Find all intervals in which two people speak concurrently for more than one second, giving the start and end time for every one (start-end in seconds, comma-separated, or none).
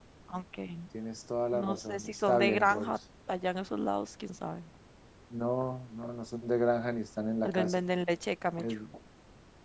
1.5-2.9